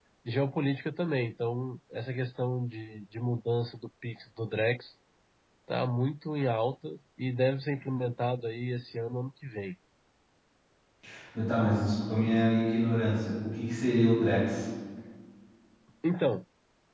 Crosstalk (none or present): none